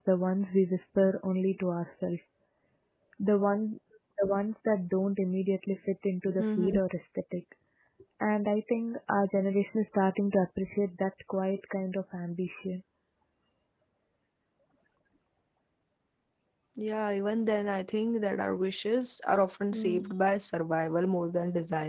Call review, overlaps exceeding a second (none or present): none